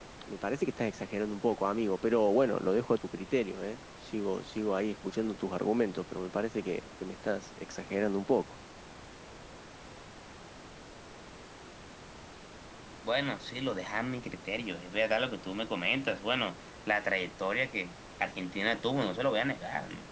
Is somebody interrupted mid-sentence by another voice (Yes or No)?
No